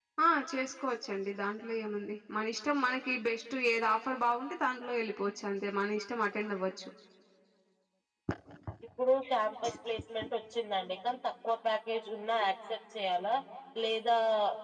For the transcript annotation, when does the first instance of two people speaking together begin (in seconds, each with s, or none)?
none